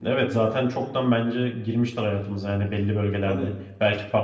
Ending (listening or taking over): listening